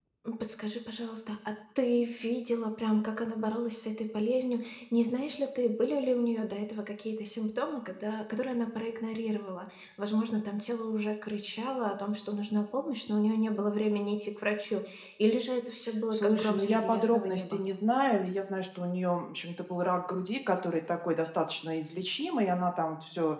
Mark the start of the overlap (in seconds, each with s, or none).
16.1 s